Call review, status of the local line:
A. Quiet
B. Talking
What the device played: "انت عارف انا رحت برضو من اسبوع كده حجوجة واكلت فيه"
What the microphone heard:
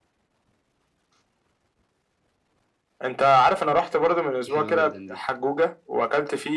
B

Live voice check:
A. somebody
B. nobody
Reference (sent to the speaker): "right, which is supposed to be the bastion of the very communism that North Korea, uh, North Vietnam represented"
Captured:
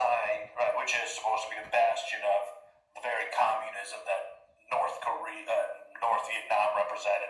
B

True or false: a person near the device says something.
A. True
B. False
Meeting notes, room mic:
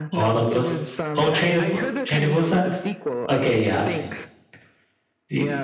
A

